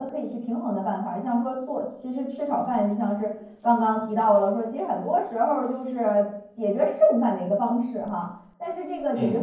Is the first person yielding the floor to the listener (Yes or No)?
No